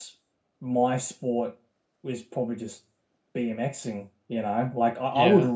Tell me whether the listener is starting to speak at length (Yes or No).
Yes